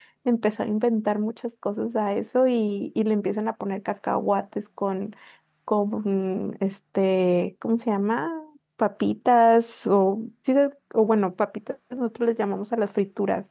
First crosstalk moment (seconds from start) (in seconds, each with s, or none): none